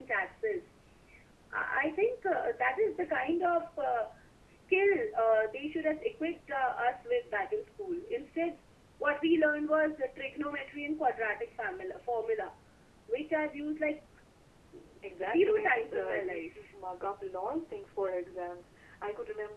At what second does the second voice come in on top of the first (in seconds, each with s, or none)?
15.2 s